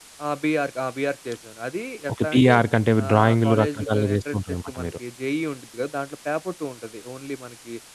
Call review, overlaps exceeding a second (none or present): present